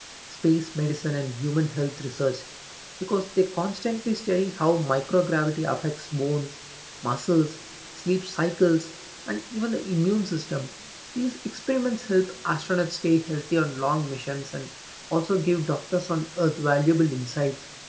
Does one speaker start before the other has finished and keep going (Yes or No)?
No